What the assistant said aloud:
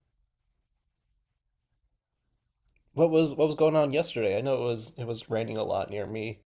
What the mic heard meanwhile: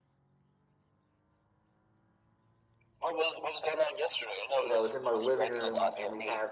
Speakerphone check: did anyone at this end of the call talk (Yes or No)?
Yes